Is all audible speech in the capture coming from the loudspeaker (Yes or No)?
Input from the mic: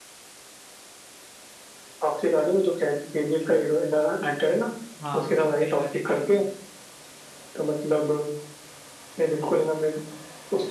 No